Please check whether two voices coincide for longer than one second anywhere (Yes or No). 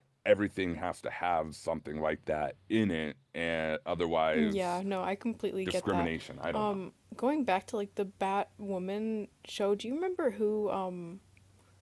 No